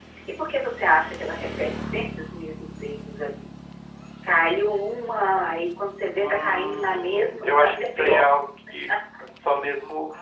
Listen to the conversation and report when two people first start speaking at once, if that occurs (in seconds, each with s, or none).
6.2 s